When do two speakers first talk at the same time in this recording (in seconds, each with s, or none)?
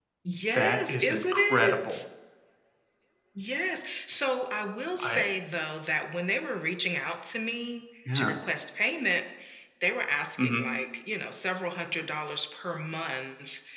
0.5 s